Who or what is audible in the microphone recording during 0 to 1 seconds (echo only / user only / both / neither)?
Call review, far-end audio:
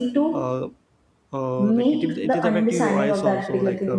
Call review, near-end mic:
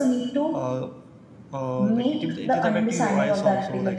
echo only